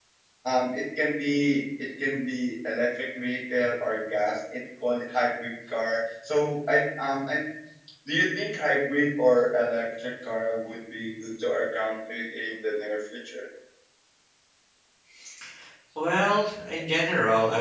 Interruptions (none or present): none